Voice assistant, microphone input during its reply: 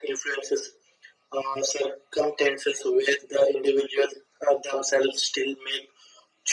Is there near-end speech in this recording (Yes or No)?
No